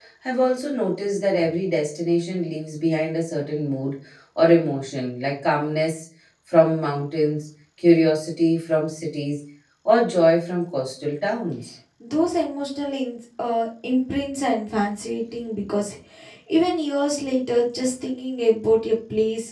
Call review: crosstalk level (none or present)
none